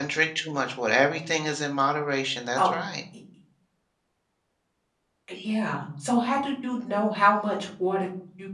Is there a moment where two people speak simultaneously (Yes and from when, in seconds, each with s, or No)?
No